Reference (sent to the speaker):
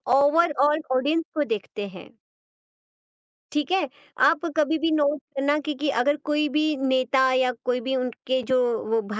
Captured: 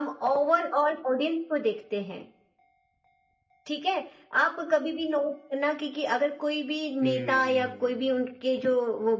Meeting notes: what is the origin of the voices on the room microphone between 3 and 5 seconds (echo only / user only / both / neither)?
echo only